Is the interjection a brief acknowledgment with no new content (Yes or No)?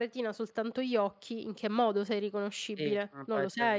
No